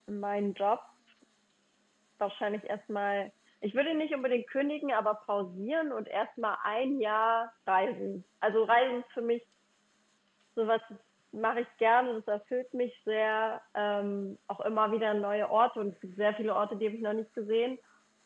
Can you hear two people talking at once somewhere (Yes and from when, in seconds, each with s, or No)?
No